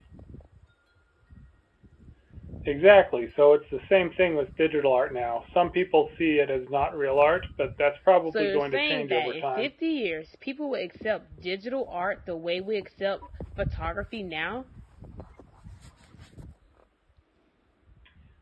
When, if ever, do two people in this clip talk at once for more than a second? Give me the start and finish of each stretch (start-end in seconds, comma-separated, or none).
8.3-9.7